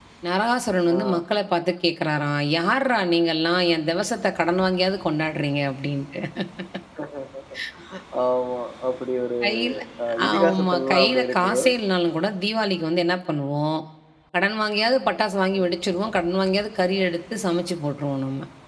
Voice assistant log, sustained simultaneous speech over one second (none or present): present